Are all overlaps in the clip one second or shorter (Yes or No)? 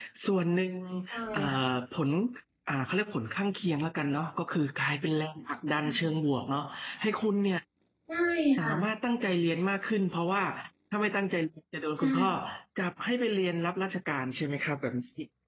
Yes